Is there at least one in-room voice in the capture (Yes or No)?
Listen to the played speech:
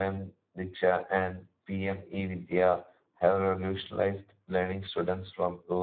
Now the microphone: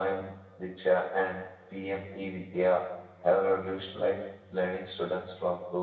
No